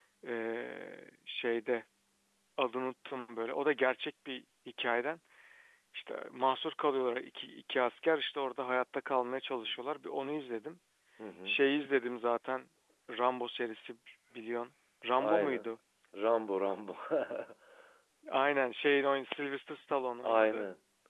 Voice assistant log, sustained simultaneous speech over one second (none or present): none